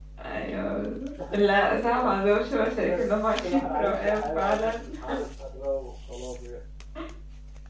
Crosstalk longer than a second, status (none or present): present